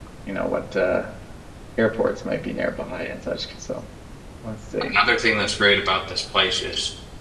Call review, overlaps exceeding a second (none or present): none